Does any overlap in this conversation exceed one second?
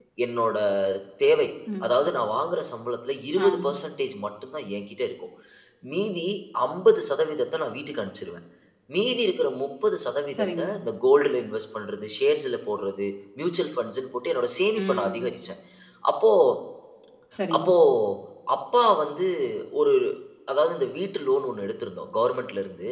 No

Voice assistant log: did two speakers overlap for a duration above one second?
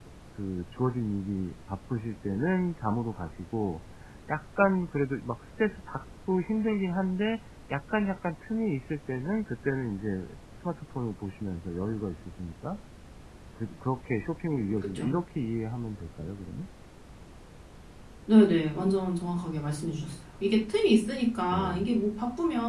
No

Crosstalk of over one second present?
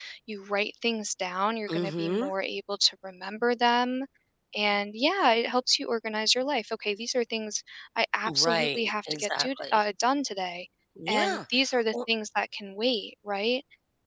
Yes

